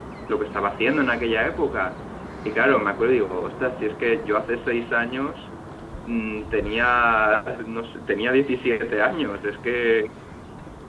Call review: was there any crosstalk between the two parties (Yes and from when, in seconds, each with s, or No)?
No